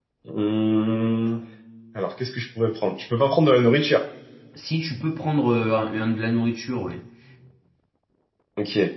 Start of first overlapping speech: none

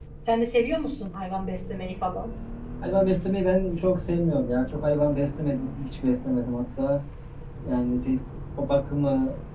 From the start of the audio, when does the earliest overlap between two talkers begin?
none

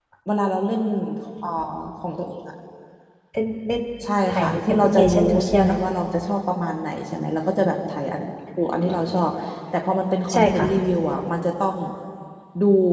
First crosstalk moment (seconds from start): 4.3 s

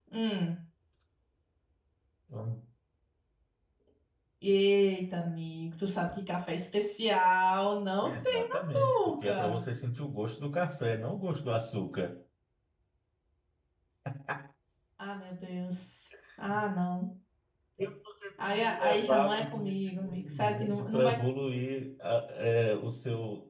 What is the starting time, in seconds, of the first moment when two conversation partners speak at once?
8.0 s

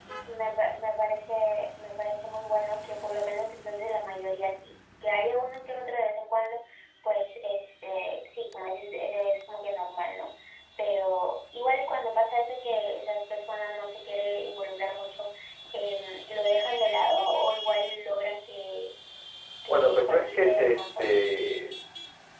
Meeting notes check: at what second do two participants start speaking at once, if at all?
19.7 s

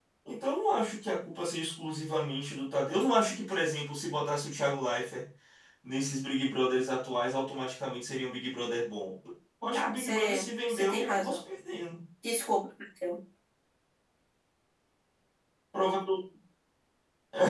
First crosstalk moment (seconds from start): 9.7 s

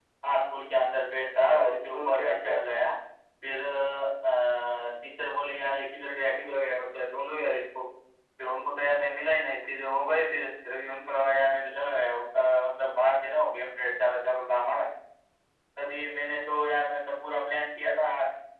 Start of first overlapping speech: 1.4 s

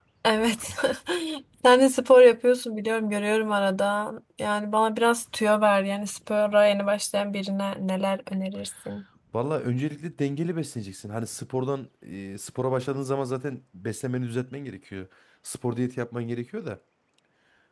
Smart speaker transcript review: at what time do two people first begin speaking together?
none

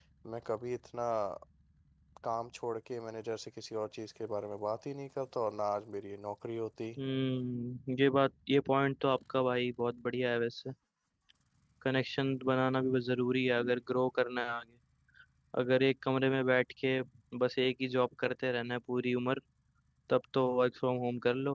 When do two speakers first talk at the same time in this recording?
none

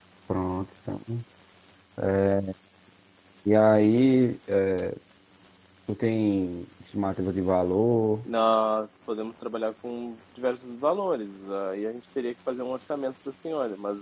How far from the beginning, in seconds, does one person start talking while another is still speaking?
none

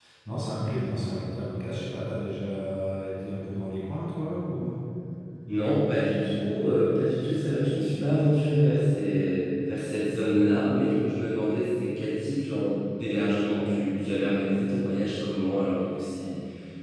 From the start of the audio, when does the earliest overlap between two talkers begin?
none

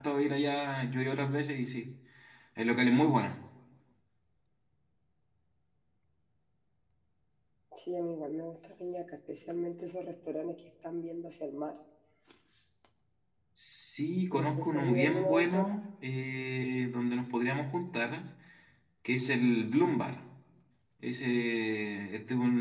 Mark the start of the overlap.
14.3 s

